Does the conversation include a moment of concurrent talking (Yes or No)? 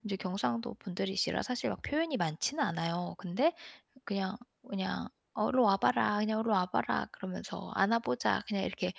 No